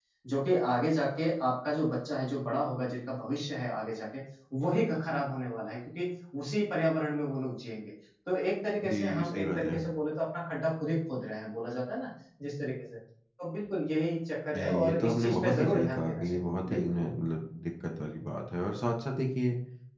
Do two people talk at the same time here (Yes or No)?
Yes